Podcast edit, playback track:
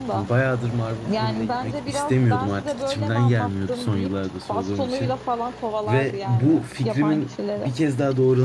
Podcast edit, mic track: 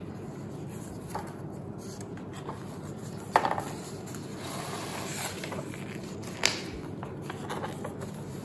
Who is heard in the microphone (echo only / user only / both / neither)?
neither